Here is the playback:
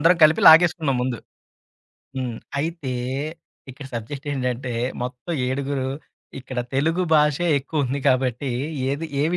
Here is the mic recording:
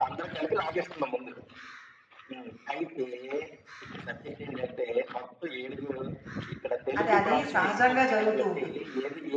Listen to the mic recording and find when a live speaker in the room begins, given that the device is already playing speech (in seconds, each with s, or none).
7.0 s